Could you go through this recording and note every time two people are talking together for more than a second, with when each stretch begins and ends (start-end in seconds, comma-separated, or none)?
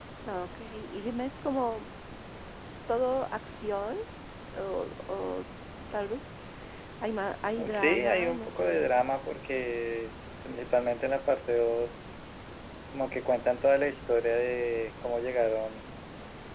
7.7-8.9